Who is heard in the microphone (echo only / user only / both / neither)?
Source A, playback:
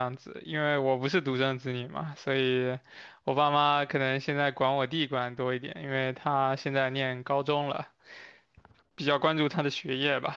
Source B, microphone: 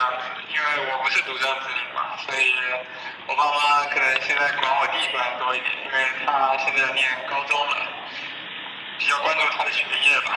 echo only